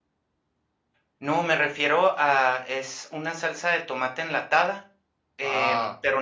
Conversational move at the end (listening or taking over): listening